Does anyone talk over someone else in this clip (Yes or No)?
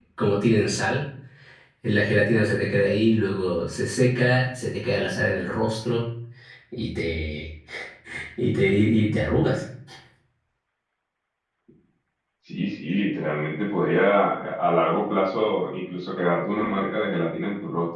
No